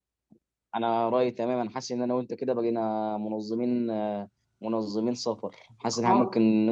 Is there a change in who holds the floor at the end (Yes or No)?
No